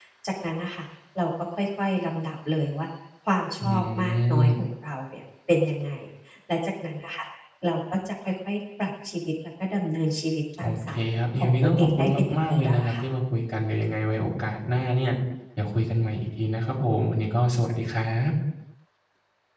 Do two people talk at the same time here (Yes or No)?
Yes